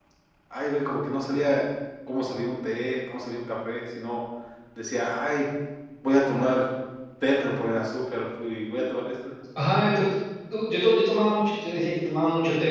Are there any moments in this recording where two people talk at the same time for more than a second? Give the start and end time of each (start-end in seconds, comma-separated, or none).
none